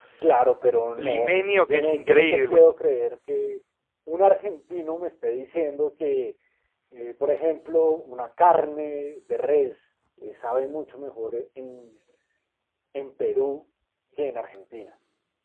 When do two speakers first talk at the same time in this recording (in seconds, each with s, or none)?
1.0 s